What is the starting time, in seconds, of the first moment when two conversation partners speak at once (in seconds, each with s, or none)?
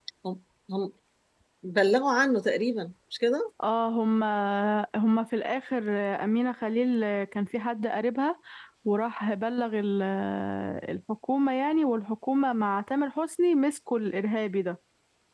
none